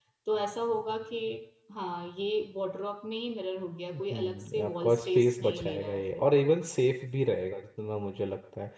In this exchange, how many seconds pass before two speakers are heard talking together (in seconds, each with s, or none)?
3.9 s